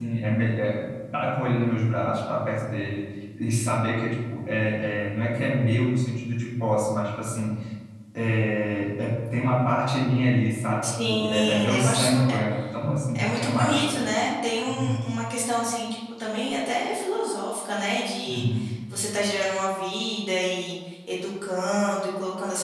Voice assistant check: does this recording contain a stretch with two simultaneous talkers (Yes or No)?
Yes